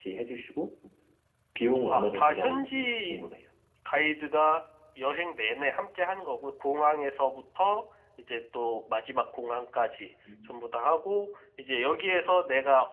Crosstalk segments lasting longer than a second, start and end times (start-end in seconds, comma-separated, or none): 1.9-3.2